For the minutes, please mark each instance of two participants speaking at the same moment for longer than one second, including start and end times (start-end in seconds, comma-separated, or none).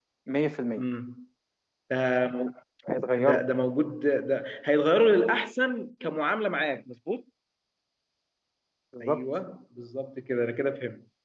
none